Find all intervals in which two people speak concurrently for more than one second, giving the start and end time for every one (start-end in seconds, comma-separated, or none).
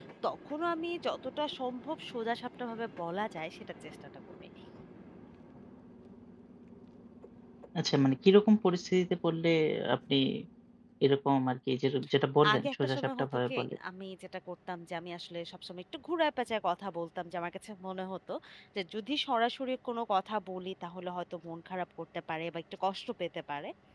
12.5-13.8